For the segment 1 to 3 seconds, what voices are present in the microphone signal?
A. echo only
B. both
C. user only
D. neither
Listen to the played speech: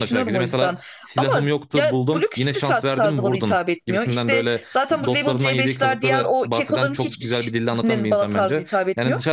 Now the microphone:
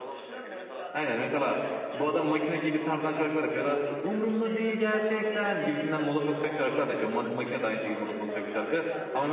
B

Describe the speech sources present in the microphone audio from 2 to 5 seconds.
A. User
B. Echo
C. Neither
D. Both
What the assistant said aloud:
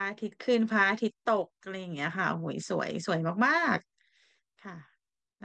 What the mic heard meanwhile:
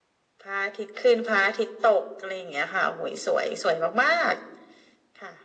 B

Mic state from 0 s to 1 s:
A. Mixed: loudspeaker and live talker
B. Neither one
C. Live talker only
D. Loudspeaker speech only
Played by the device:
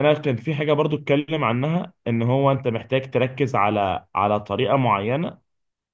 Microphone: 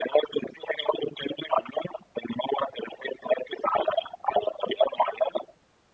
D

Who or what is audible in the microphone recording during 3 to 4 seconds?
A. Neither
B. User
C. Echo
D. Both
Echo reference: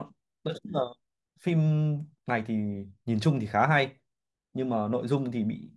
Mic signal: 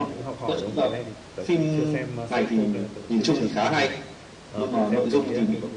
D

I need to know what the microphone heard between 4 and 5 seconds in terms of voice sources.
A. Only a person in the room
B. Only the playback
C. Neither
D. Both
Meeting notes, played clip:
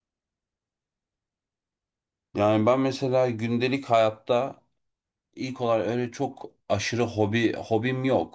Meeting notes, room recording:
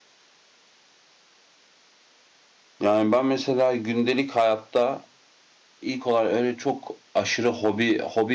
B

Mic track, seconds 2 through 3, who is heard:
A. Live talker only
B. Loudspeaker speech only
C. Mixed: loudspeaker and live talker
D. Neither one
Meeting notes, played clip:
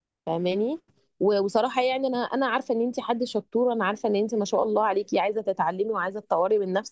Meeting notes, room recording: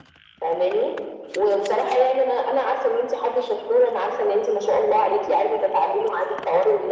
B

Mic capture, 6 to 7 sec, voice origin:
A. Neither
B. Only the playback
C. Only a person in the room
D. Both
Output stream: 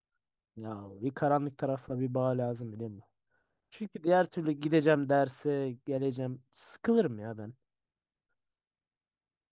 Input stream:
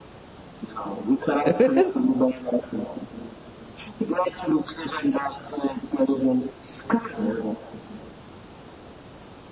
B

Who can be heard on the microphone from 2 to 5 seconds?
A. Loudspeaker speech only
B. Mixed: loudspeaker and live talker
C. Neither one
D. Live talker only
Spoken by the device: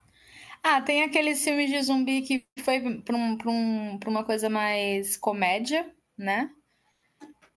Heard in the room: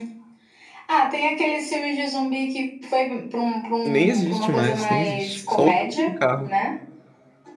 B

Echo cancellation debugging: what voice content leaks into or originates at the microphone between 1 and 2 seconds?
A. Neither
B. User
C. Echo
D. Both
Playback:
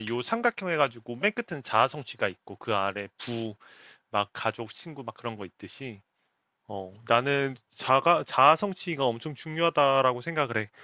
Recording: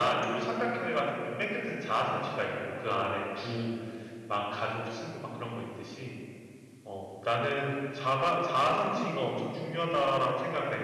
C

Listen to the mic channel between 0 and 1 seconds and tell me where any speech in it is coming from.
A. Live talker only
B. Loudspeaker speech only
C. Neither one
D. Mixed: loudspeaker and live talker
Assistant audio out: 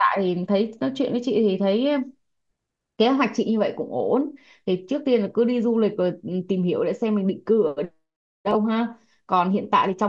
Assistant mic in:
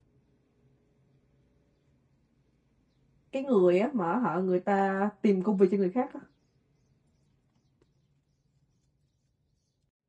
C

